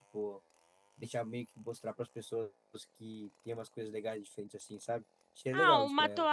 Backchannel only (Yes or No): No